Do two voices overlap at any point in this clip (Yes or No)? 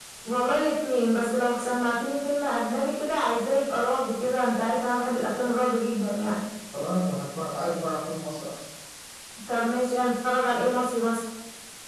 No